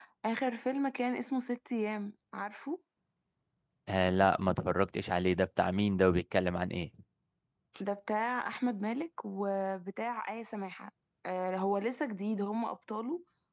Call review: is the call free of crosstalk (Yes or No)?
Yes